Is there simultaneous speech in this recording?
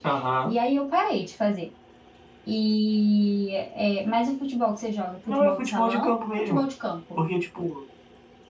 Yes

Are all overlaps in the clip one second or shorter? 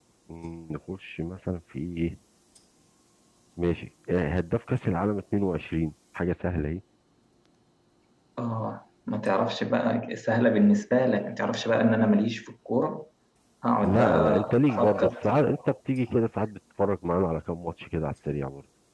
No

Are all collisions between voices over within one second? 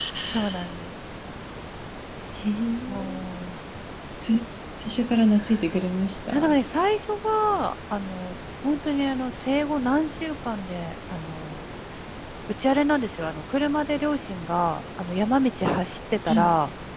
Yes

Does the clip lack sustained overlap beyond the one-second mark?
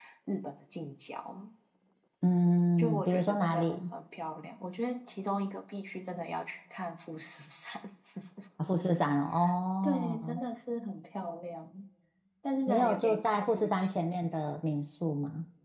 No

